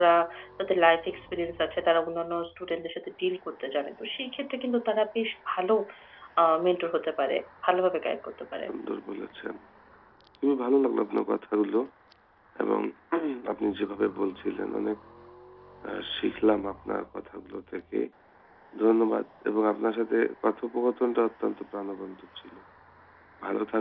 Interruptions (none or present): none